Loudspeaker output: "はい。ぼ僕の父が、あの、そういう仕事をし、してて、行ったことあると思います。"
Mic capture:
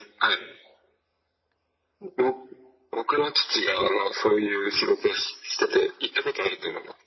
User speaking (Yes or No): No